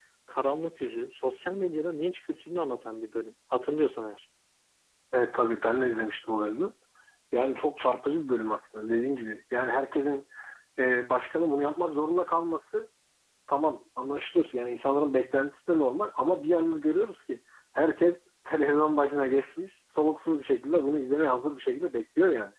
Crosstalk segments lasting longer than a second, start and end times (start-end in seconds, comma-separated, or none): none